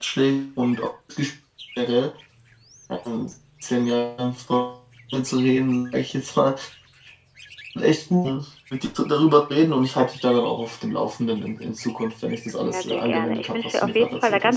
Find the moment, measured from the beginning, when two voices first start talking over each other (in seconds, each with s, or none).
12.5 s